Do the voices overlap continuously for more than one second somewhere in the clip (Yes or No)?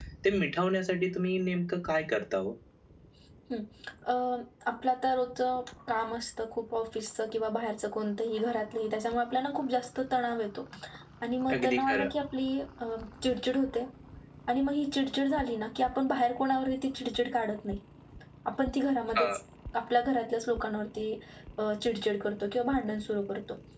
No